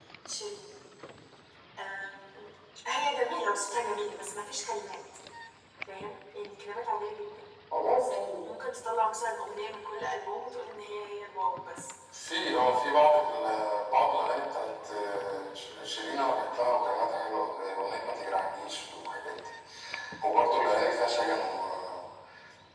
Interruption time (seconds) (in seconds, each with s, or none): none